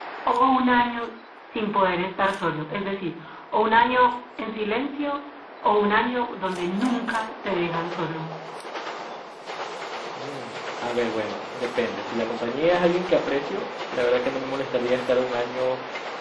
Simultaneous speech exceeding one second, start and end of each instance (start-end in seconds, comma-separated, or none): none